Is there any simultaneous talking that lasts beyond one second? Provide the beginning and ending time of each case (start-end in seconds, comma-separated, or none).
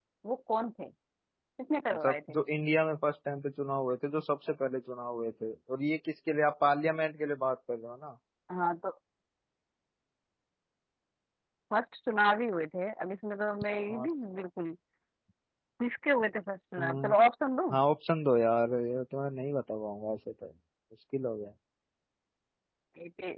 none